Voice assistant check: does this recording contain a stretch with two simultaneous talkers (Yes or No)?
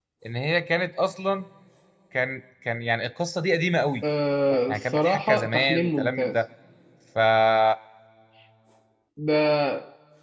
Yes